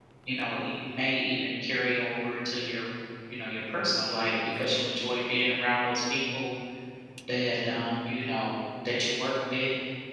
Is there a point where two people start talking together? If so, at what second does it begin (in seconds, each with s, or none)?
none